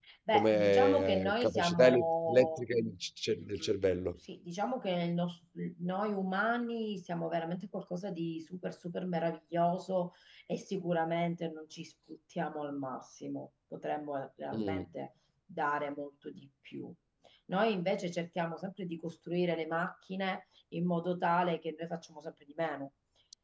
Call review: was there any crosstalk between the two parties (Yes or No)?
Yes